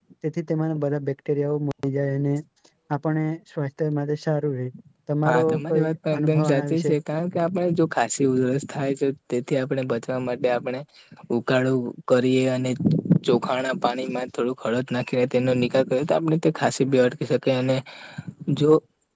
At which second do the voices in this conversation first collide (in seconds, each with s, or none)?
5.3 s